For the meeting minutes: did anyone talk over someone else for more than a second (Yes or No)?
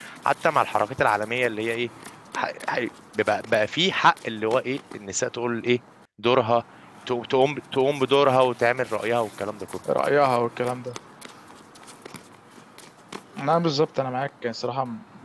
No